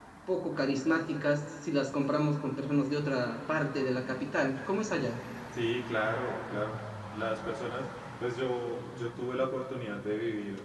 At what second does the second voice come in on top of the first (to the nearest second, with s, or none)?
none